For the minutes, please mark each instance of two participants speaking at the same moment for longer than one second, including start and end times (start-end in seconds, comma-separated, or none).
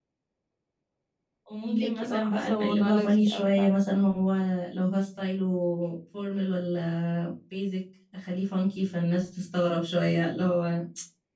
1.6-3.8